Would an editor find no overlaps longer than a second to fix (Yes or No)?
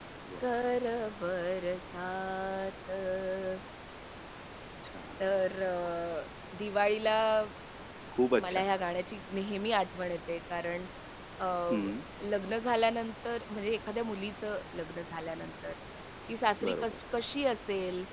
Yes